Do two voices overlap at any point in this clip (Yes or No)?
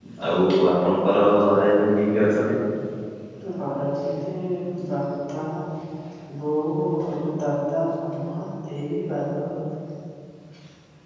No